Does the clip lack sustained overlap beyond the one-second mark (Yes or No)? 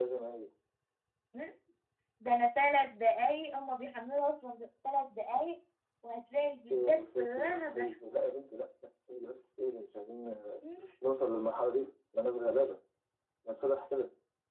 No